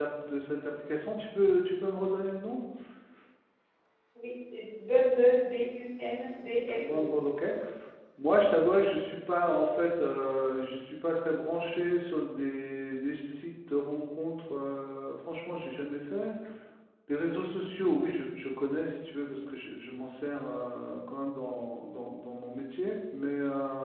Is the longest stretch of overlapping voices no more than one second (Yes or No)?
Yes